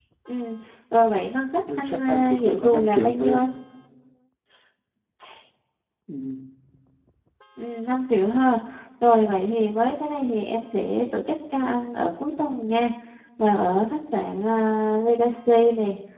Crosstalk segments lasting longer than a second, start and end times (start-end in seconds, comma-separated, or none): 1.8-3.5